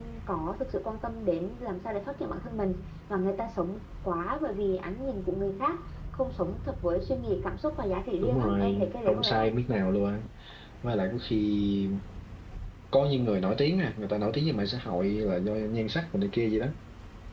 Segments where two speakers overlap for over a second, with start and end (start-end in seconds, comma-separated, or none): 8.2-9.5